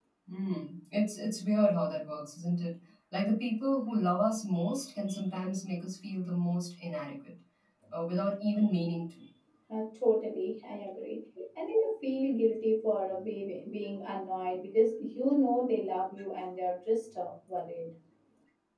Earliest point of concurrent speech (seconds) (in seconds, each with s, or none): none